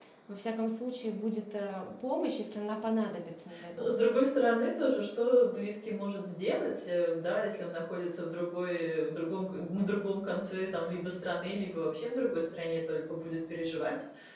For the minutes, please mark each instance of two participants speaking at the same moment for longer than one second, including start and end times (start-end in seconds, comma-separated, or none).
none